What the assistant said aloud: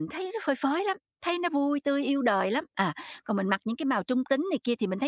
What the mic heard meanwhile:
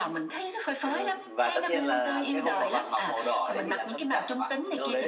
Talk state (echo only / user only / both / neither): both